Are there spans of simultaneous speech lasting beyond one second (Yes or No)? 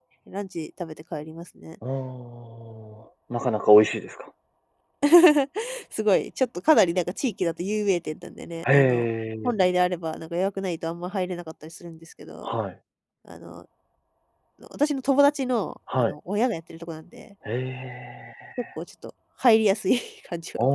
No